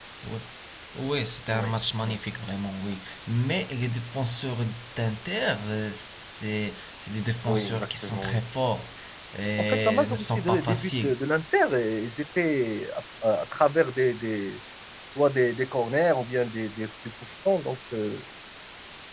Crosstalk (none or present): present